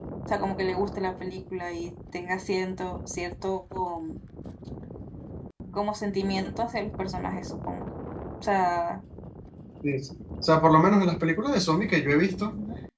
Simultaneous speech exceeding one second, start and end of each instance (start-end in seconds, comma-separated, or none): none